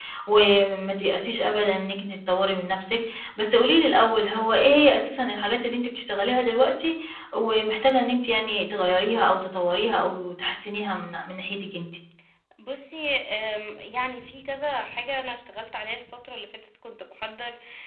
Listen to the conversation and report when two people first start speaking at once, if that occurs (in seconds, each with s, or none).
none